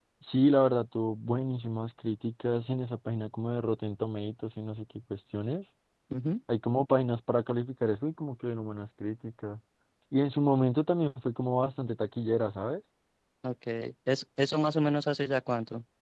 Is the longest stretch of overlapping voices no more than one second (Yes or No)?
Yes